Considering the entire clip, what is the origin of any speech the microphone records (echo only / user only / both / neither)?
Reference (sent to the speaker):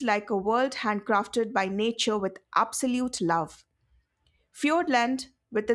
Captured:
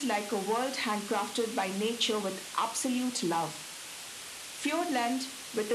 echo only